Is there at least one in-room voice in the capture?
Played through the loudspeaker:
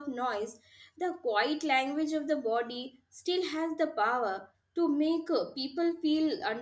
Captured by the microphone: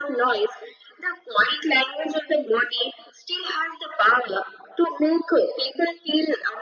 No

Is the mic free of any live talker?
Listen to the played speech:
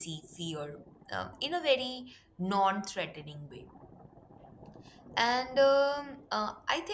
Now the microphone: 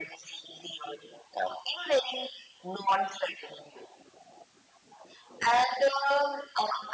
Yes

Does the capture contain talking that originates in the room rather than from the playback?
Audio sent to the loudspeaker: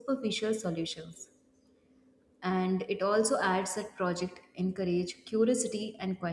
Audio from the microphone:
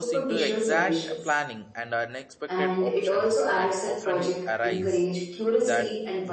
Yes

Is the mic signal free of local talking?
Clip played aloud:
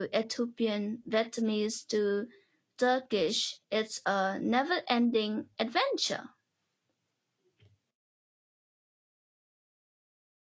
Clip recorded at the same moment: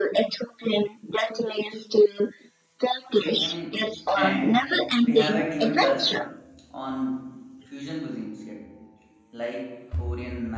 No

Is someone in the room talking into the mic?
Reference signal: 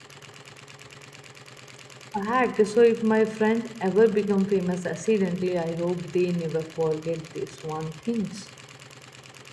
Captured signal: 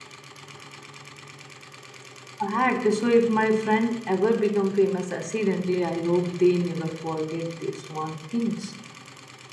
No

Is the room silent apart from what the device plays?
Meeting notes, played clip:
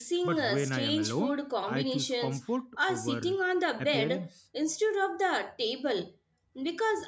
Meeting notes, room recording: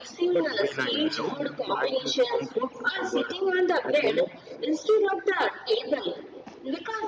No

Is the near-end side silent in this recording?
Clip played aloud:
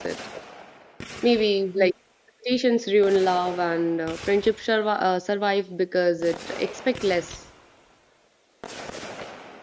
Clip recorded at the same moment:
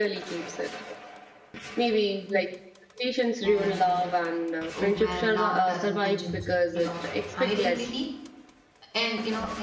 No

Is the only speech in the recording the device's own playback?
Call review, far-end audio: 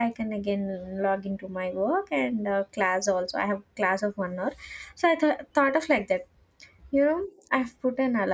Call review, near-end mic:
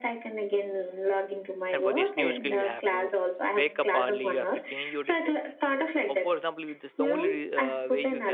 No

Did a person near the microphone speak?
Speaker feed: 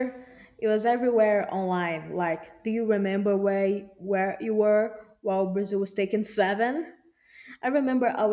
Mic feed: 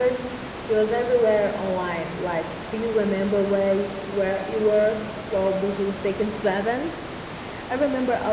No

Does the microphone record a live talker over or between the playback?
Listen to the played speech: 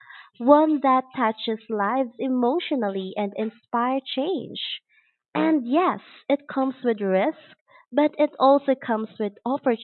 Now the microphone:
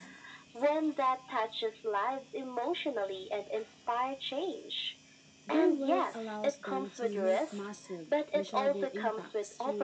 Yes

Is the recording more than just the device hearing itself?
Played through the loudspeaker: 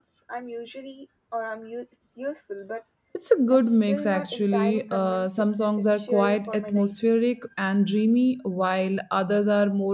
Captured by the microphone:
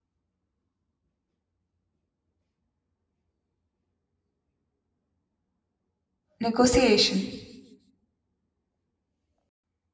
Yes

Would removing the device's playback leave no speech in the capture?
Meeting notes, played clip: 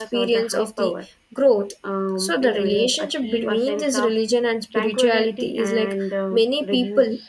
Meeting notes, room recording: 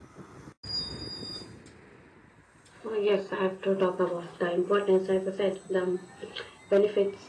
No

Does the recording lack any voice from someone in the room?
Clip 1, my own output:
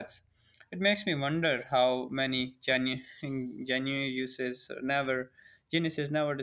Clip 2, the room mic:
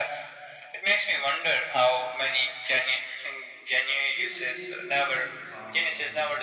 No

